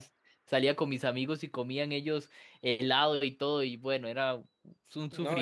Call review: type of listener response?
taking over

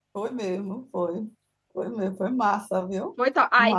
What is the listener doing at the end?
taking over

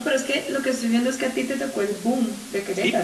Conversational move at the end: taking over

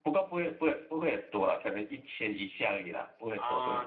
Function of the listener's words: taking over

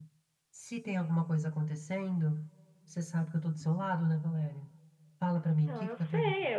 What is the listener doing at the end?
taking over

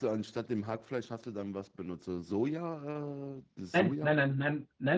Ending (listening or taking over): taking over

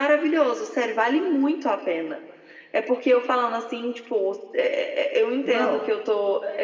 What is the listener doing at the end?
listening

